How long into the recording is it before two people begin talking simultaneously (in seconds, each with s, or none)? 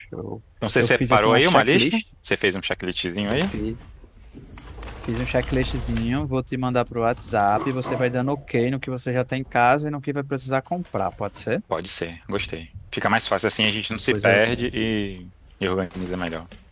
0.8 s